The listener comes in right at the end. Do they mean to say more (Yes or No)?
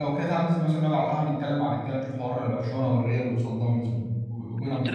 Yes